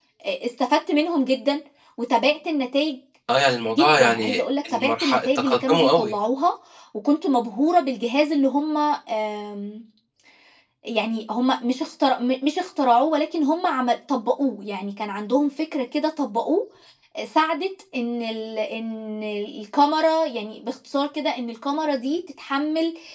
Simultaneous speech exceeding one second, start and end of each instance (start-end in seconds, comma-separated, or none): 3.7-6.1